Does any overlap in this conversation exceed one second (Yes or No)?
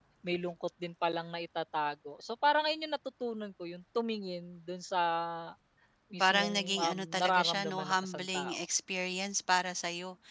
Yes